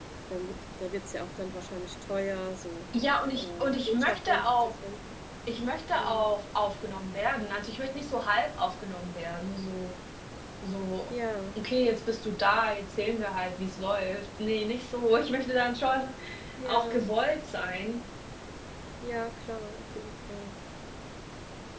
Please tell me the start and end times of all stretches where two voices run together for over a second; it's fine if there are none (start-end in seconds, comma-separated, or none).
3.4-4.7